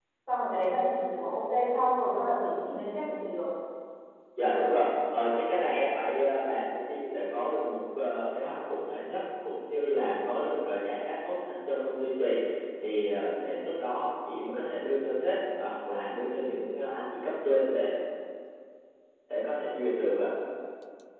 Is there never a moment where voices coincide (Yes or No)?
Yes